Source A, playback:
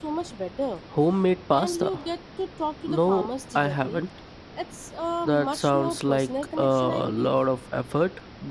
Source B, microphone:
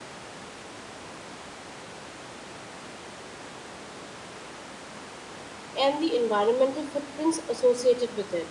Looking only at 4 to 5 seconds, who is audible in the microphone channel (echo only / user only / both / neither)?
neither